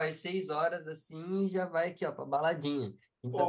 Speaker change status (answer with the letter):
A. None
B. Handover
B